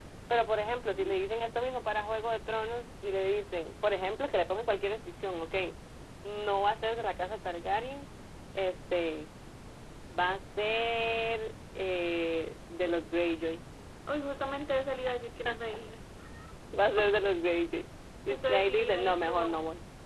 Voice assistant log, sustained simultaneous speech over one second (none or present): present